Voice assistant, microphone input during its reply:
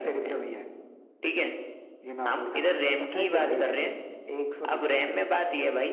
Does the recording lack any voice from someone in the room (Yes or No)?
No